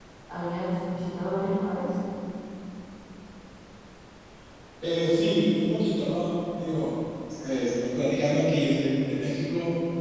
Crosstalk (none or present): none